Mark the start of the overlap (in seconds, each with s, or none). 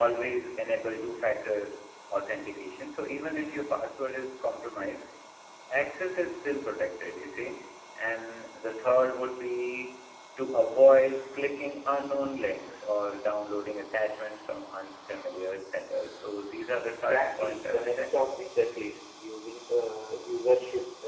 16.8 s